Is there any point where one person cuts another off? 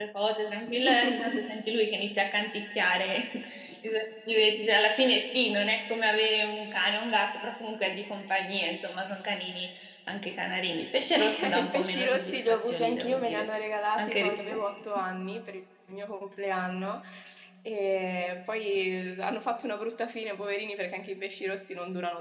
Yes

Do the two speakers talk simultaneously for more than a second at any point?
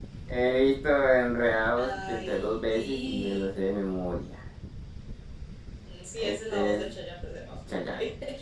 Yes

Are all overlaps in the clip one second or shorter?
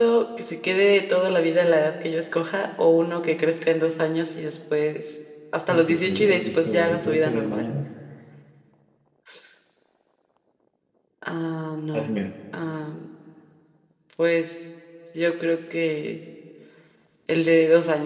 No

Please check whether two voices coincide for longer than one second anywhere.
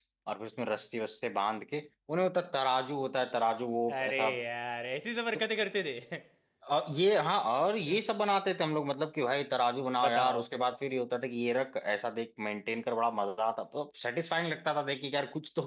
No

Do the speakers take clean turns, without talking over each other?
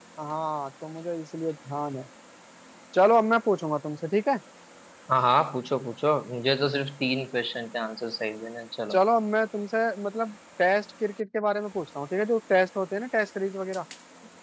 Yes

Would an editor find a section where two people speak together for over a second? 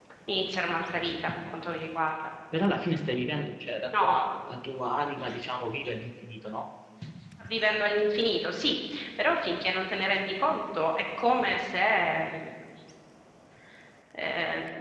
No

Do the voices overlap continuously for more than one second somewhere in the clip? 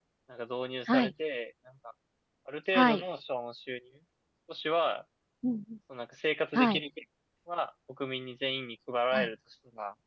No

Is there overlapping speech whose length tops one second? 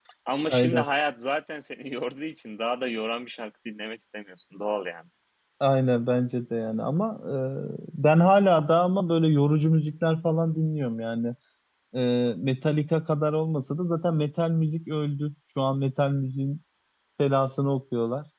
No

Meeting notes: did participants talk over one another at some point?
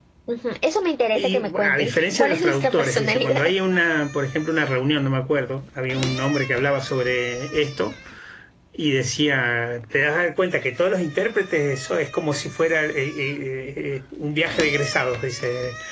Yes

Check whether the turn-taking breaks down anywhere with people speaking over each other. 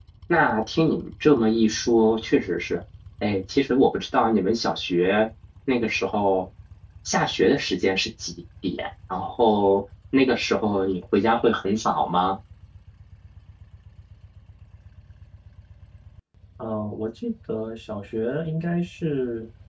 No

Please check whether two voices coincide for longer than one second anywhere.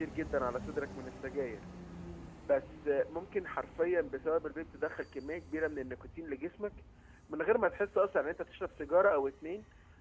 No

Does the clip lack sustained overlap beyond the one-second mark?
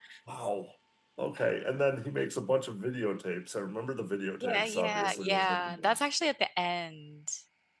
No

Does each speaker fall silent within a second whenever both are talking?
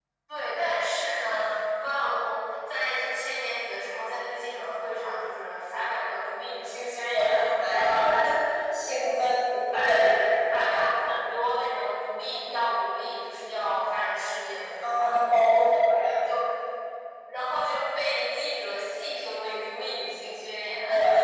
Yes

